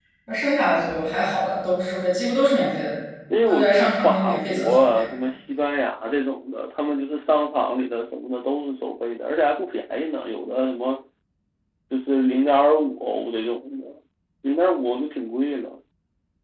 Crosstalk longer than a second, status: present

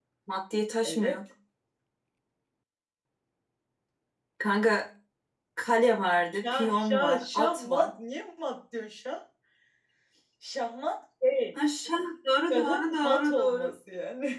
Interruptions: present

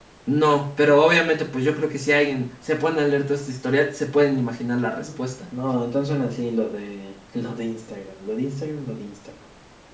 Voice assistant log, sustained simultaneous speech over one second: none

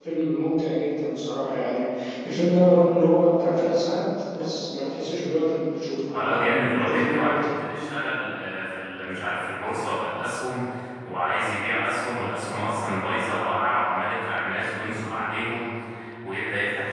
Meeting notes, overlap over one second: present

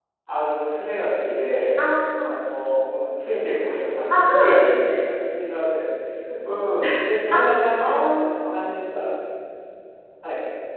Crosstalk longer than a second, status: present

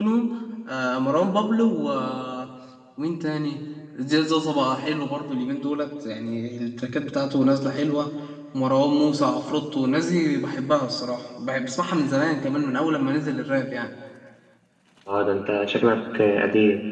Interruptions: none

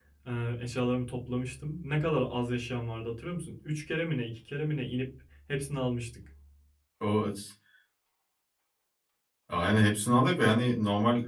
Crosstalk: none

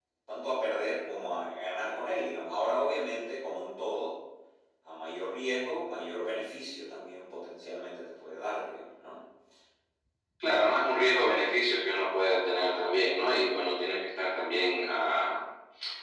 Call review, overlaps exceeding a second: none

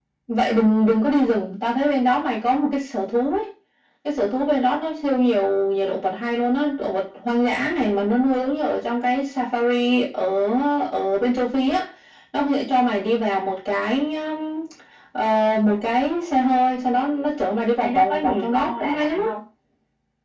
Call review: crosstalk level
present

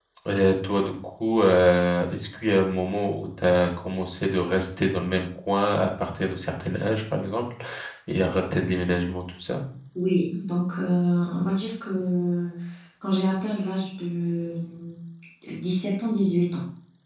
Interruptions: none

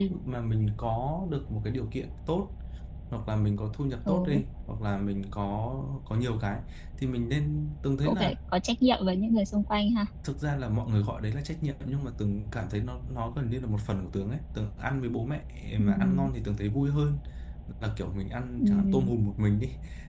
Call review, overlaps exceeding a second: none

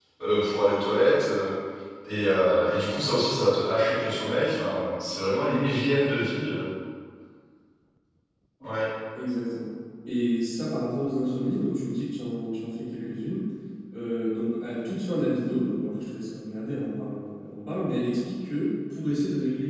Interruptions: none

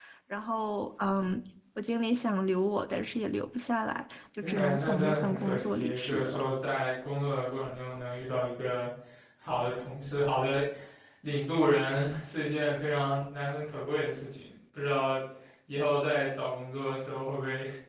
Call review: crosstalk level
present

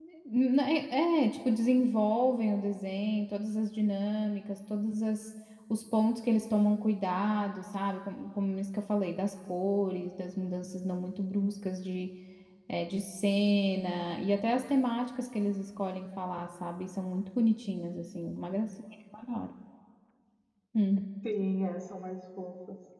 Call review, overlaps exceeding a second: none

